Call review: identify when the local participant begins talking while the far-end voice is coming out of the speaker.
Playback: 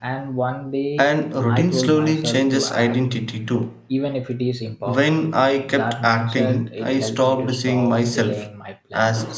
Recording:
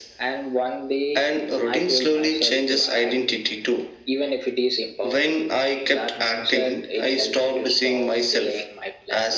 none

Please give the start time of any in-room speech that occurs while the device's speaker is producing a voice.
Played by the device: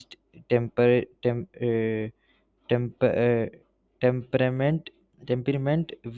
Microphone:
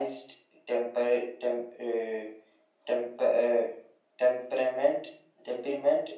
none

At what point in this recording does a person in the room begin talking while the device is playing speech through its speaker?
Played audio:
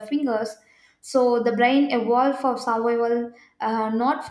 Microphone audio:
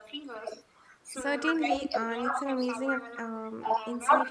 1.1 s

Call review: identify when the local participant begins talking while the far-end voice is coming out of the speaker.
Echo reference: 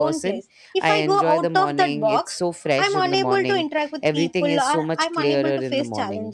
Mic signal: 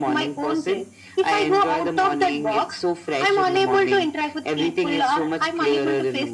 none

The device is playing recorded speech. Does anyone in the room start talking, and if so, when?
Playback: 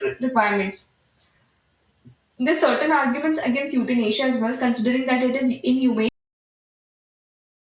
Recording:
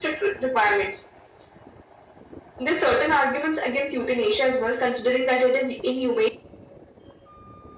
none

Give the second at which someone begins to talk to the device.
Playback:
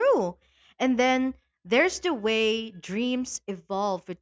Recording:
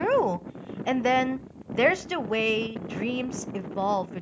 none

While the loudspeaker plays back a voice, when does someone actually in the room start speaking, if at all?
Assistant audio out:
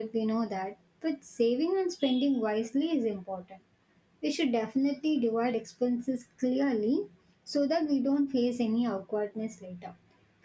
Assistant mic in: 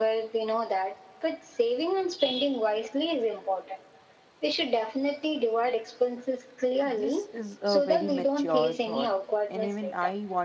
6.8 s

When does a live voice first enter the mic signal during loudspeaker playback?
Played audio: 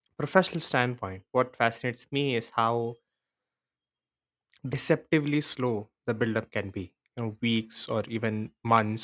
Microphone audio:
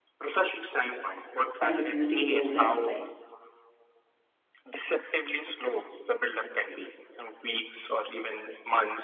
1.6 s

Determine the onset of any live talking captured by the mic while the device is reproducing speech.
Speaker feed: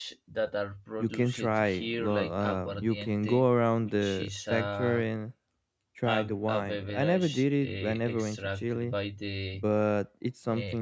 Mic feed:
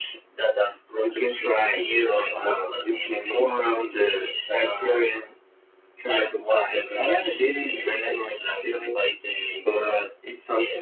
none

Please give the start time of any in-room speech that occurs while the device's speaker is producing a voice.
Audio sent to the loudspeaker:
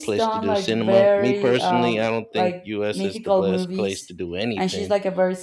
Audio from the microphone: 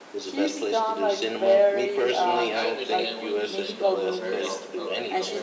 2.1 s

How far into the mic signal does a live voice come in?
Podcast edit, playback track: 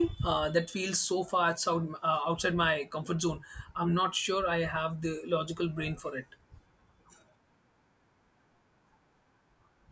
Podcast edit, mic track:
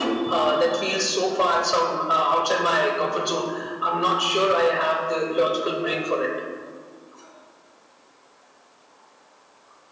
none

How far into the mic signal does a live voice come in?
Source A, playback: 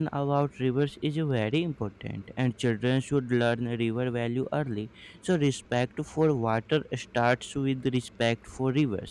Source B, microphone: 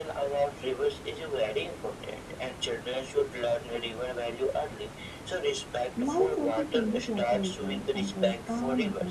6.0 s

